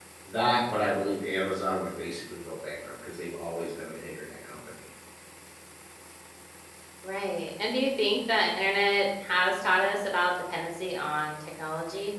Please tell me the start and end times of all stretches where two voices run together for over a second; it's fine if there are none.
none

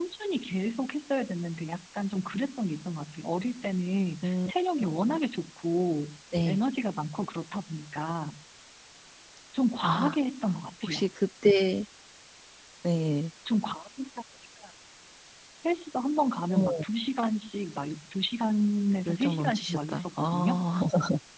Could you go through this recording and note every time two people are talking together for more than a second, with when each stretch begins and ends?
19.1-20.5

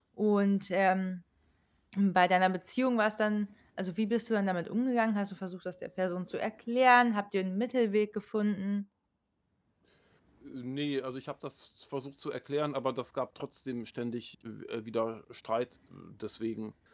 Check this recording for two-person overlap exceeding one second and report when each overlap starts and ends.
none

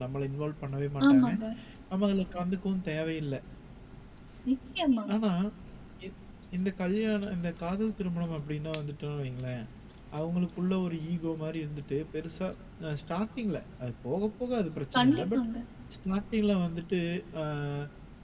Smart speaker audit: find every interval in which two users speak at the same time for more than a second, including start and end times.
none

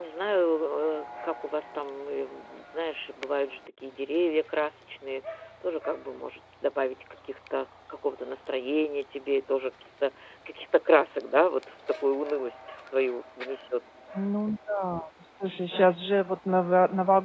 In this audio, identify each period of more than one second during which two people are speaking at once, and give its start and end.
none

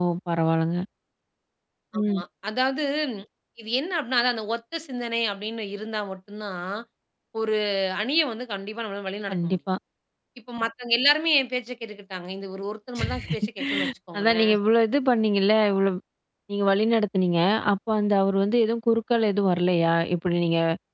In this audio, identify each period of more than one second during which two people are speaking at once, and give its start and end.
none

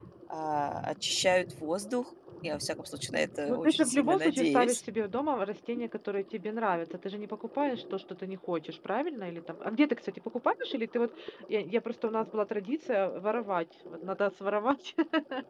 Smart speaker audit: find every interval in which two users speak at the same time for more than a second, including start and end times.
3.5-4.8

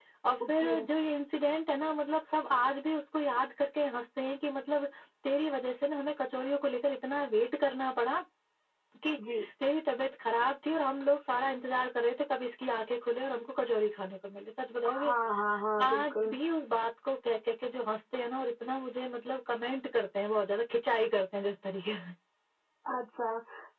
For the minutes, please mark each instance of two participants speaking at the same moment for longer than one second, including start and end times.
none

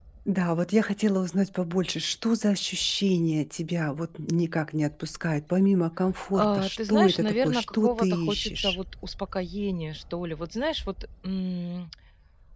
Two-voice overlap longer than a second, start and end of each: 6.3-8.8

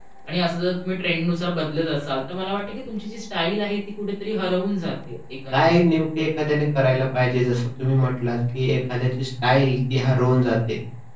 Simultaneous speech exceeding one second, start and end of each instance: none

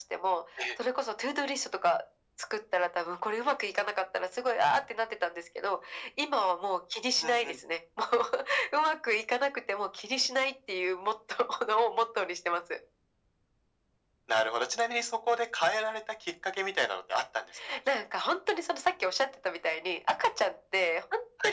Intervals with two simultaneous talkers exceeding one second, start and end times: none

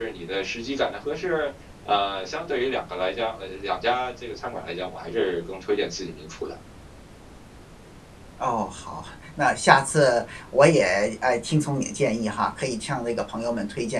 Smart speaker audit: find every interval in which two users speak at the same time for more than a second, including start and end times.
none

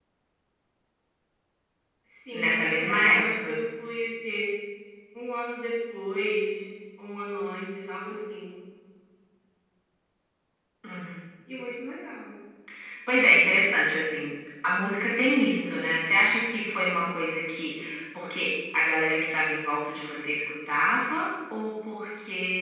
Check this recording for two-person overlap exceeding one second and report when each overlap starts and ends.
2.3-3.6

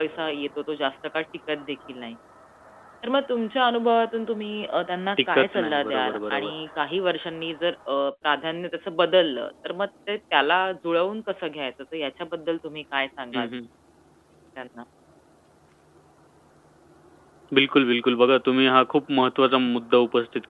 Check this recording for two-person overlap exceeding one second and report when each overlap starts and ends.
5.2-6.5

